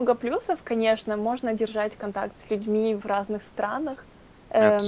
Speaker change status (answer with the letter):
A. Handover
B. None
B